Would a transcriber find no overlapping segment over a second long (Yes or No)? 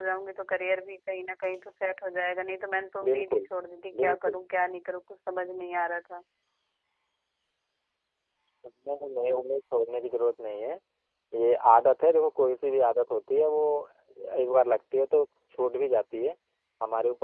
Yes